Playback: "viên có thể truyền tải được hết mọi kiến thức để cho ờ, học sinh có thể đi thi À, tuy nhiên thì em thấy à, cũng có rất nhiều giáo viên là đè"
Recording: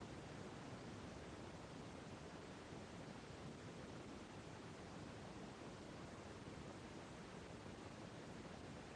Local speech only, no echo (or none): none